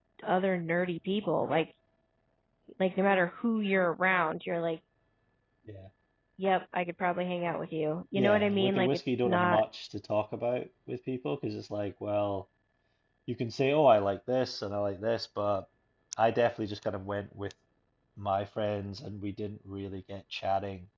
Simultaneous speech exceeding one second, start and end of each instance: 8.2-9.6

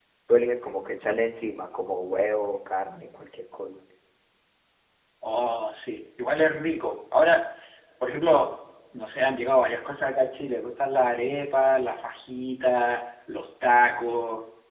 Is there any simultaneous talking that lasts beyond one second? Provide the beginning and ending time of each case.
none

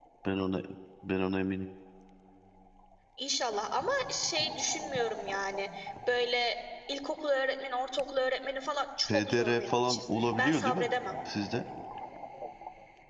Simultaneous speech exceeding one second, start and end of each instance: 9.1-10.9

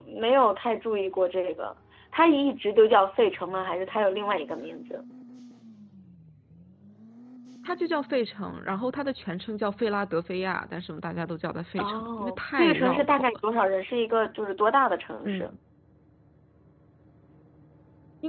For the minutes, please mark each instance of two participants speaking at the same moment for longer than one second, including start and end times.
11.8-13.3

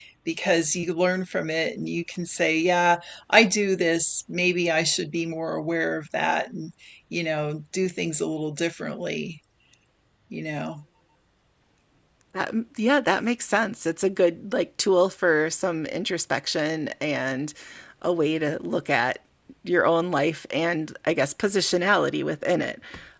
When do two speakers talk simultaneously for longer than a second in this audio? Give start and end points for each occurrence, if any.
none

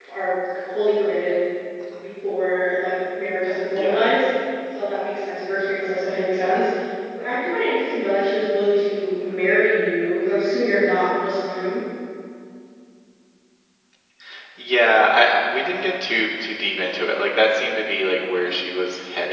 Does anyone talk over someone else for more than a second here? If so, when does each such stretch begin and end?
none

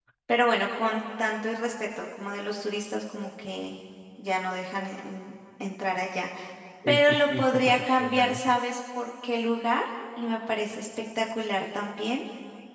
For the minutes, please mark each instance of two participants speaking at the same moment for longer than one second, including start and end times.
6.9-8.6

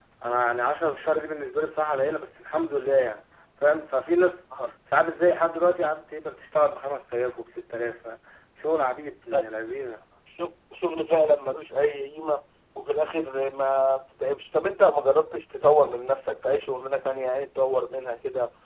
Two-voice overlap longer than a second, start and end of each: none

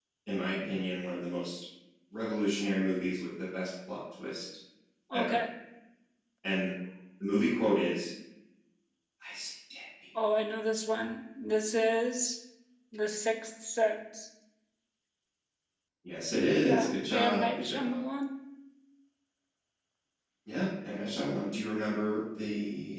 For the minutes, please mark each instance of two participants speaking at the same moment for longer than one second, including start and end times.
16.6-18.0

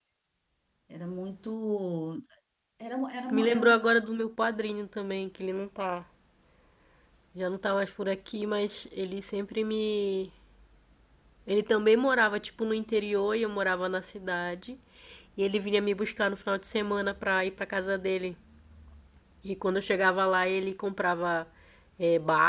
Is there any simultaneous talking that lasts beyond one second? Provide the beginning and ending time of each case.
none

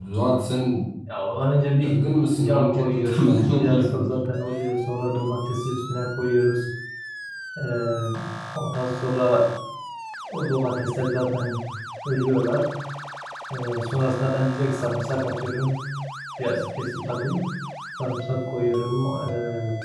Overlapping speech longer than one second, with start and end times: 2.4-4.2

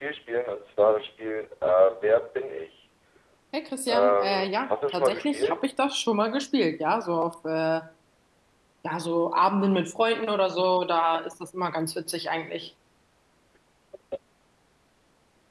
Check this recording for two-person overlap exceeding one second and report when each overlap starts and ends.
3.9-5.7

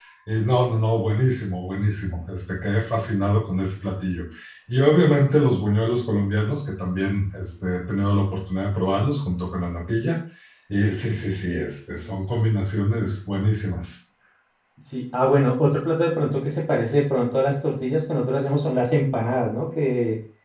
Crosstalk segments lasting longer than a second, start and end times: none

